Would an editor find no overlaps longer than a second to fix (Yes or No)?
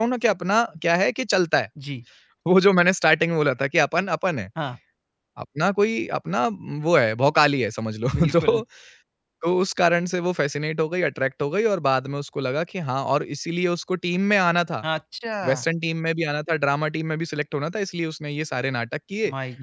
Yes